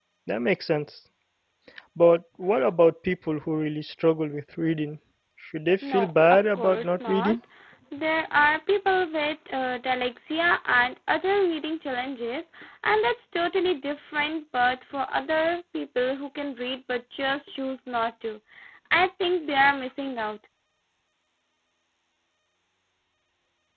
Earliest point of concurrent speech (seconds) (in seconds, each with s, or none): 5.8 s